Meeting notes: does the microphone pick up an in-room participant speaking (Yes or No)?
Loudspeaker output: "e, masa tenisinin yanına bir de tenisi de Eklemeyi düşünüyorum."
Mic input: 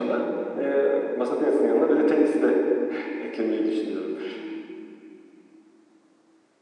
No